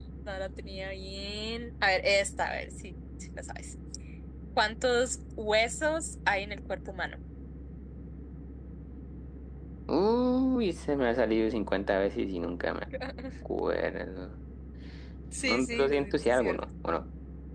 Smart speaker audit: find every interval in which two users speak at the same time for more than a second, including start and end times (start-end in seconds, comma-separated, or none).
15.4-16.6